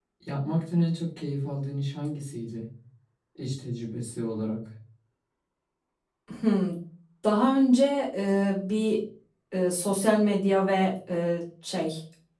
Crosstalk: none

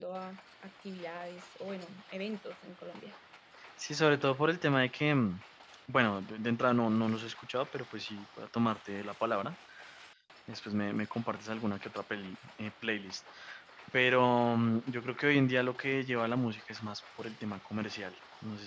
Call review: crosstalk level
none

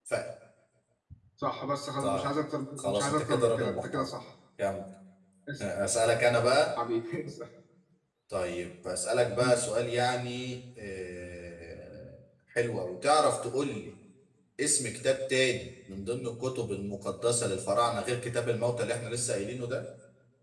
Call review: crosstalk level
present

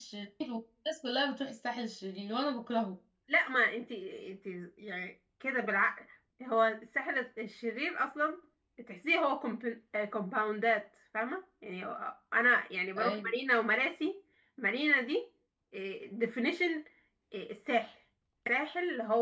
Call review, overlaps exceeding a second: none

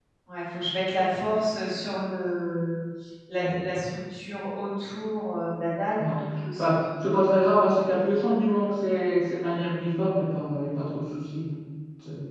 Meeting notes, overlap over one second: none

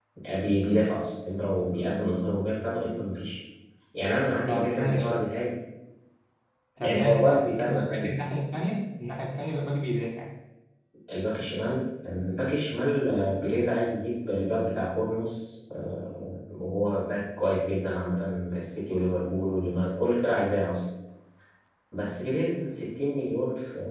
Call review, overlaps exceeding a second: present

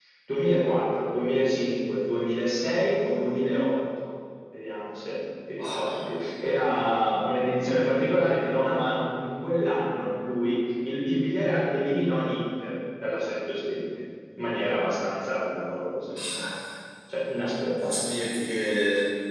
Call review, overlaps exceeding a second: none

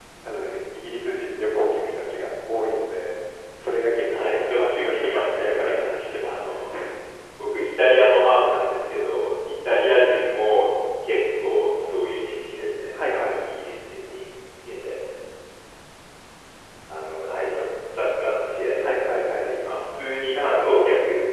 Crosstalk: present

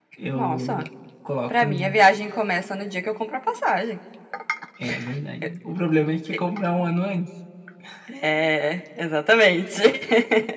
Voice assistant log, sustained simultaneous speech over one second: none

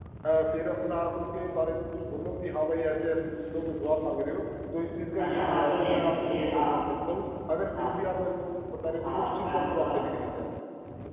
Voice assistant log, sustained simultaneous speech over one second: present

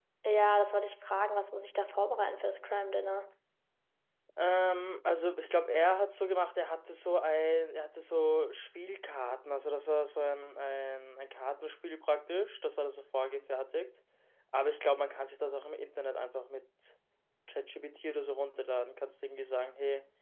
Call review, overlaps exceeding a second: none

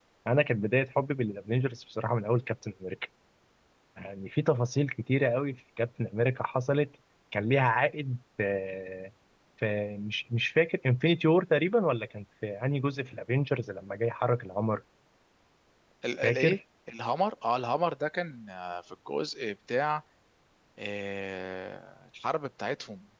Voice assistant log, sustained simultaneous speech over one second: none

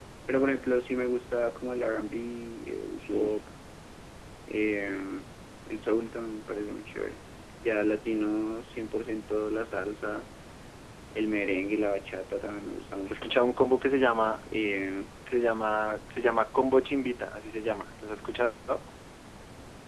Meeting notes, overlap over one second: none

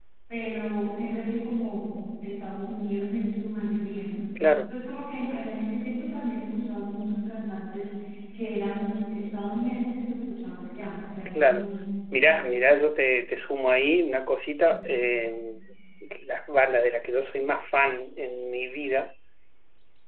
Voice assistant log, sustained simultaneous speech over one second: none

